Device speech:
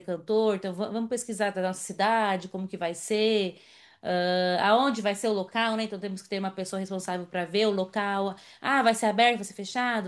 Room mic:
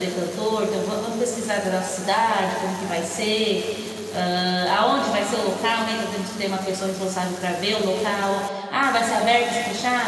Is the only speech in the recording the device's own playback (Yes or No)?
Yes